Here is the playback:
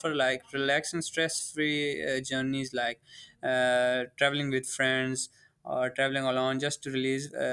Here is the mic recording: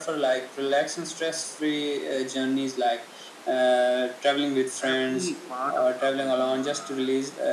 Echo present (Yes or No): Yes